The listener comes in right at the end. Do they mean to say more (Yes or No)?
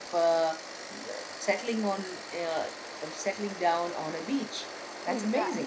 Yes